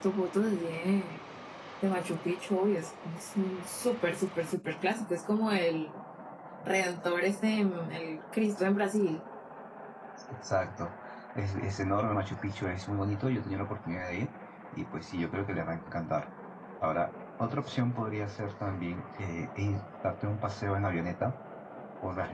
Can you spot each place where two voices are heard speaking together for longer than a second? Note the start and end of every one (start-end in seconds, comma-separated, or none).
none